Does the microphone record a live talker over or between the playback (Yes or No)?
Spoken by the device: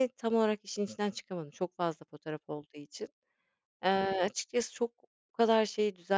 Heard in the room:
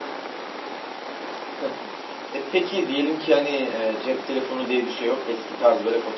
Yes